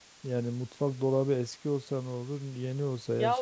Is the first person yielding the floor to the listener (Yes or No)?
Yes